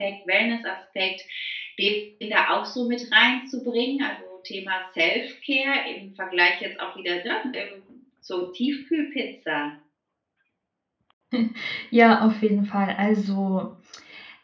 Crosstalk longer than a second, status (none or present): none